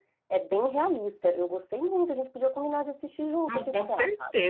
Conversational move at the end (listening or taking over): taking over